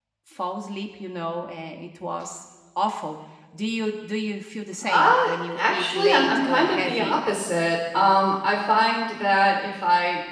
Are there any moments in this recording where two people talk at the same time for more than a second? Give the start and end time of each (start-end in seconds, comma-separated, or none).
5.5-7.2